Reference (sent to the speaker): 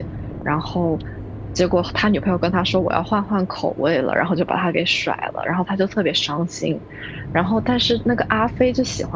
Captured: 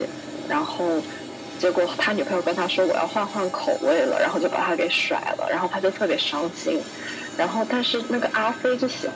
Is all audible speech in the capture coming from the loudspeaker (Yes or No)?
Yes